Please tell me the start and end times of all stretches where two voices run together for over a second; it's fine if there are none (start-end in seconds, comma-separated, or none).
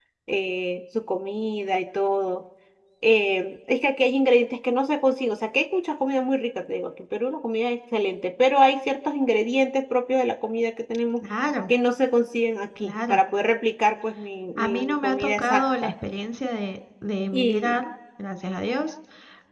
14.6-15.9